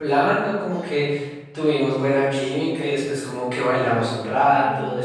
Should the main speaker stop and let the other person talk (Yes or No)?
No